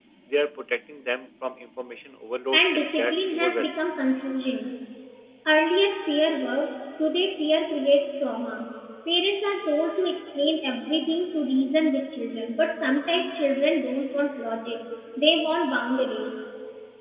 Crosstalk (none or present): present